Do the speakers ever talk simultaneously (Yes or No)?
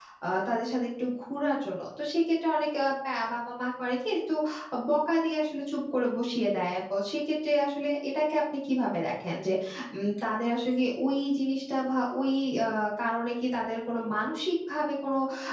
No